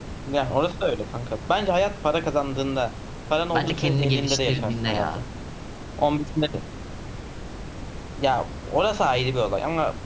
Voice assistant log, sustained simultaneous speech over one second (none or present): present